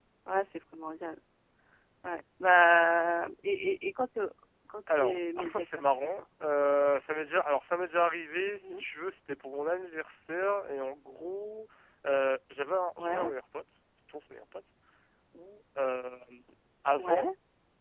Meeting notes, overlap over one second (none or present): present